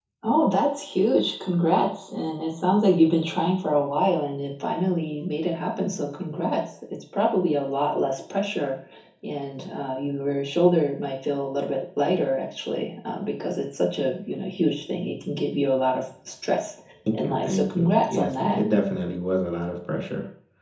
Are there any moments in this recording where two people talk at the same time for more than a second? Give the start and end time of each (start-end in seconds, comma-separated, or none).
17.1-18.6